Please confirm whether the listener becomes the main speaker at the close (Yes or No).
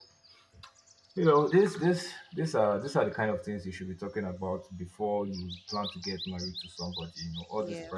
No